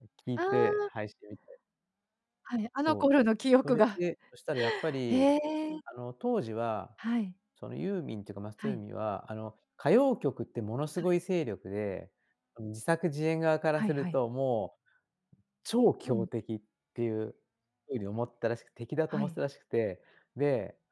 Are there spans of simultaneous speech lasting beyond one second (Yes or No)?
No